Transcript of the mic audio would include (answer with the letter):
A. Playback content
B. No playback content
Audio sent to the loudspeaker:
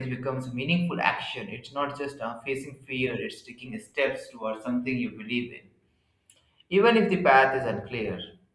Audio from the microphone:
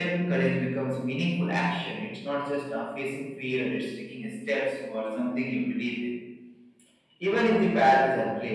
A